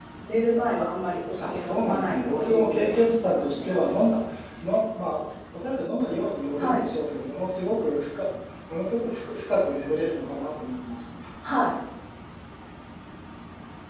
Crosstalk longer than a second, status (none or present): present